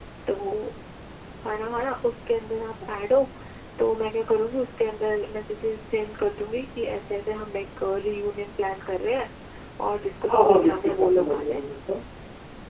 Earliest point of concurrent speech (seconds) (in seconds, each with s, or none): 10.3 s